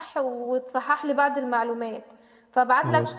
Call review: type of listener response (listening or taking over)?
listening